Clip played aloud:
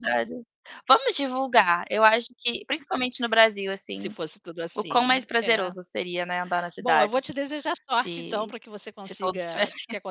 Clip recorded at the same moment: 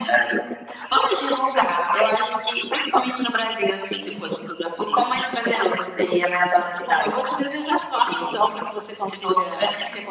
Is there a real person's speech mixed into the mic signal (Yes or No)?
No